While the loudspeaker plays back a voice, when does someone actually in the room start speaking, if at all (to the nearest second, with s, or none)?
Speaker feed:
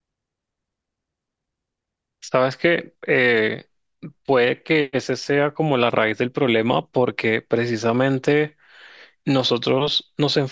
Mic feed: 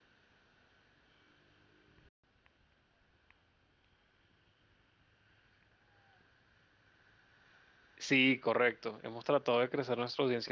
8 s